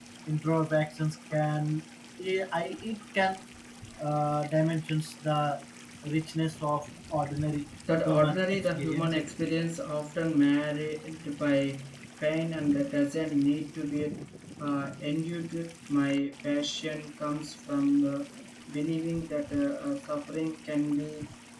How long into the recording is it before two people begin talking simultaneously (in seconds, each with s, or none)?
7.9 s